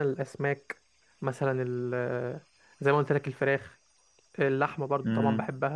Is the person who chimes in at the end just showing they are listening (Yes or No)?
Yes